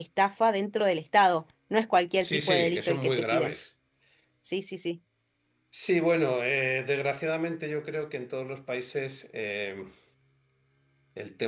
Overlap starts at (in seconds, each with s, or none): 2.2 s